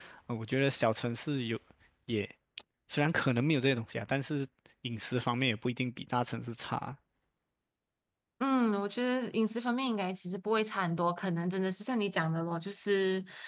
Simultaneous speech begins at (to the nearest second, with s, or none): none